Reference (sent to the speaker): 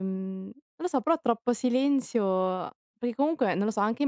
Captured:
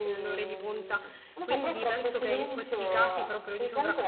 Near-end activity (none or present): present